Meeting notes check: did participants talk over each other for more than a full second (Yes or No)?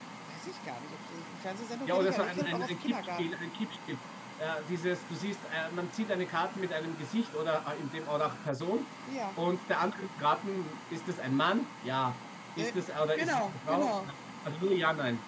Yes